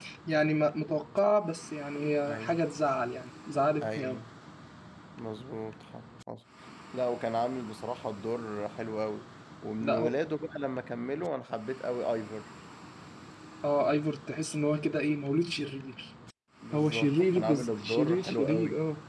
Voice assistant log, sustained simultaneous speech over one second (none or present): present